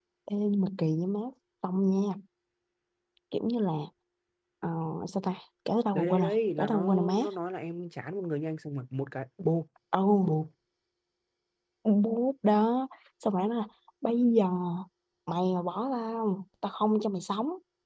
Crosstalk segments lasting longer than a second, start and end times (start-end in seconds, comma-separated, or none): 5.9-7.2